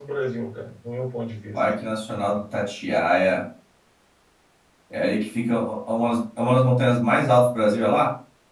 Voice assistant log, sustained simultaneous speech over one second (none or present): none